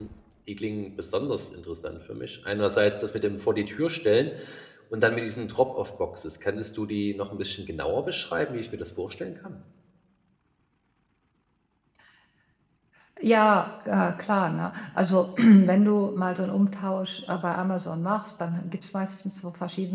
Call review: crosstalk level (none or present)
none